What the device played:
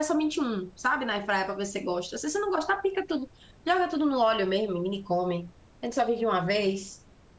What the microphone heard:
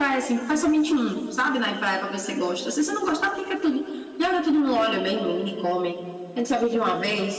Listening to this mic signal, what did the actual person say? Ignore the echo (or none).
none